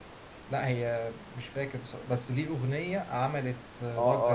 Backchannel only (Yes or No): No